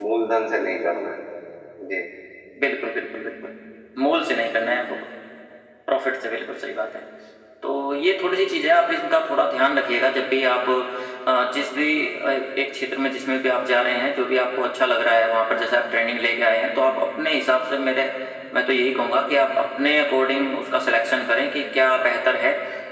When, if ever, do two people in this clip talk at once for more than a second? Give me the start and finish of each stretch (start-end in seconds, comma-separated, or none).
none